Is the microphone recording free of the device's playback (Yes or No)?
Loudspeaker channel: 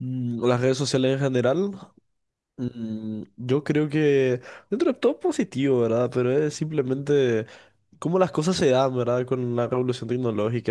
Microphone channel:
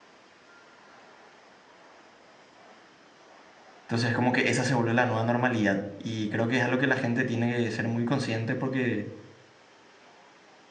Yes